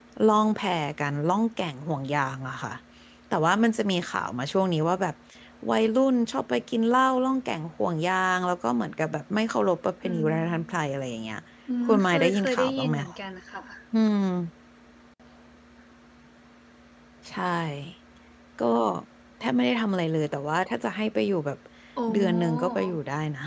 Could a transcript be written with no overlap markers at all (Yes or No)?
No